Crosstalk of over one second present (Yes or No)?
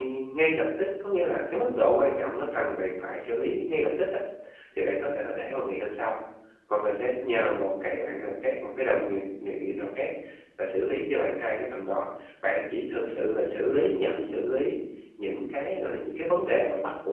No